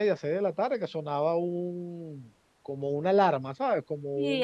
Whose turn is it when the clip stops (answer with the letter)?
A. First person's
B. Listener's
B